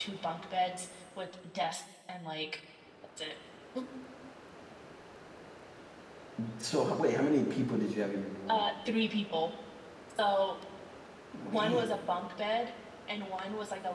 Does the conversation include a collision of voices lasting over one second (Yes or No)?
No